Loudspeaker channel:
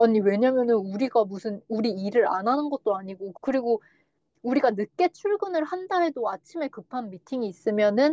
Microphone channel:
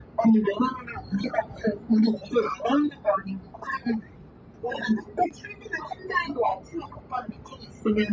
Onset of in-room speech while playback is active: none

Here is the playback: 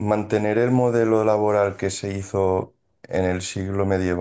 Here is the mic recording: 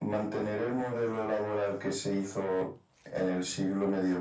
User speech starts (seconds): none

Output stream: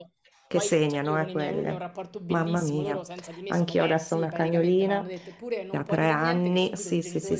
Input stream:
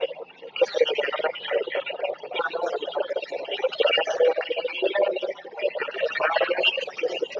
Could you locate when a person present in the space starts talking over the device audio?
none

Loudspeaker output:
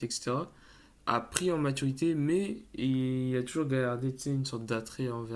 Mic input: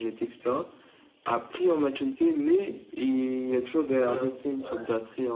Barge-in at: 4.0 s

